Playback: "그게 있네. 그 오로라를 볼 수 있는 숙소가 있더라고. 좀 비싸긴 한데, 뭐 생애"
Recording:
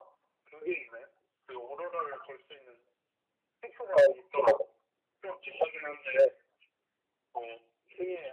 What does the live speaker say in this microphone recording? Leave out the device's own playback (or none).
none